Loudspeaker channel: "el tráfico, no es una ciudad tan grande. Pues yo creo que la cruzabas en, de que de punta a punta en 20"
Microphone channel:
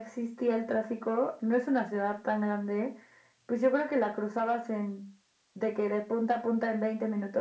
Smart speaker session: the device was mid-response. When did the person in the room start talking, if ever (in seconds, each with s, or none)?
none